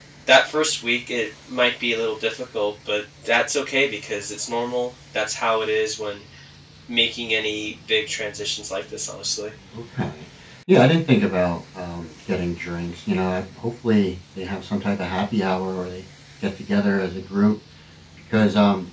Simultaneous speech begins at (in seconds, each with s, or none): none